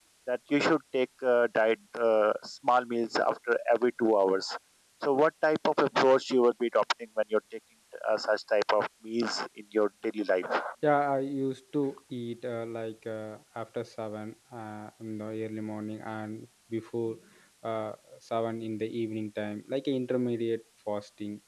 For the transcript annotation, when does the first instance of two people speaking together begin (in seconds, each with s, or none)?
none